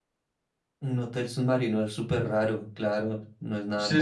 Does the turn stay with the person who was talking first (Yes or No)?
No